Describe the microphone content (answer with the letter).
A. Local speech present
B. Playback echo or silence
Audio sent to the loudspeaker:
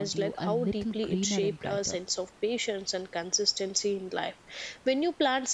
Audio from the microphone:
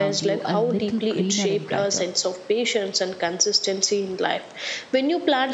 B